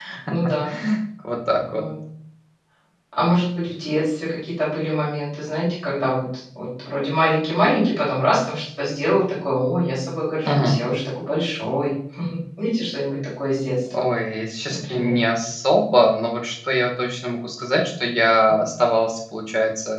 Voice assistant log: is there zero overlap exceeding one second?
Yes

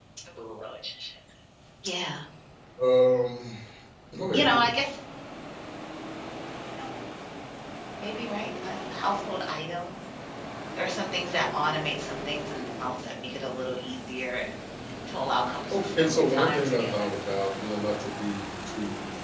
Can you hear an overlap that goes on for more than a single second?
Yes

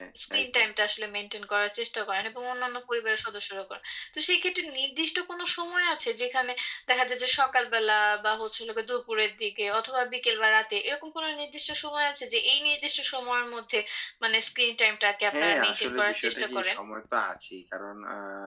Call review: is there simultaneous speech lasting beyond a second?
Yes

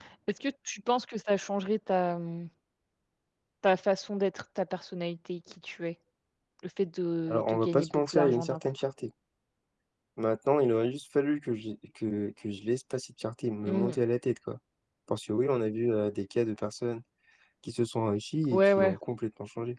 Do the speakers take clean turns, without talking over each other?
No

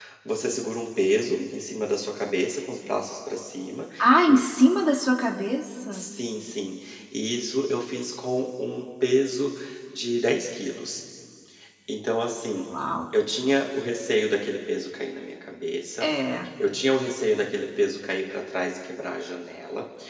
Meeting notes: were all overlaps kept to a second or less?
Yes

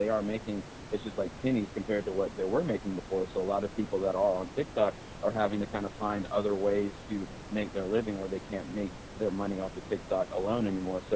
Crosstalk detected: No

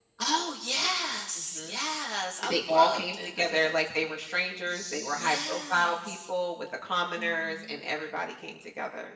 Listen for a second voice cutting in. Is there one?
Yes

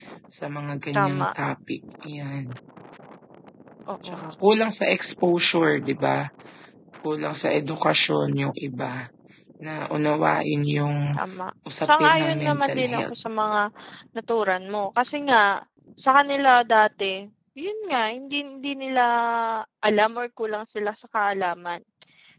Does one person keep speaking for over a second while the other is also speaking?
Yes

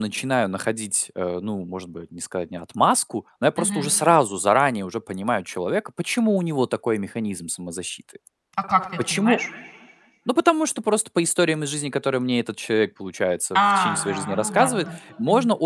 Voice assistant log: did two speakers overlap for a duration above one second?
Yes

